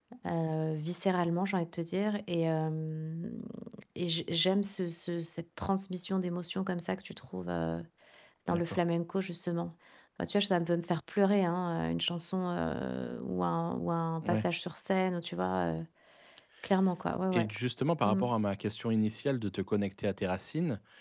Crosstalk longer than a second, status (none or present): none